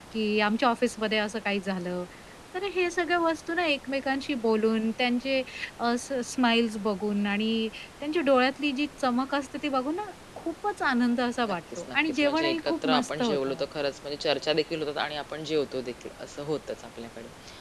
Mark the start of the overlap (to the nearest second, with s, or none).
11 s